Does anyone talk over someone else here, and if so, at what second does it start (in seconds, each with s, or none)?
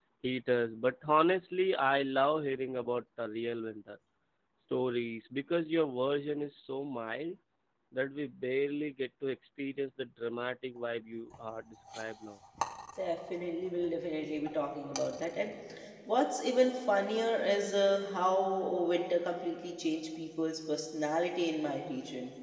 none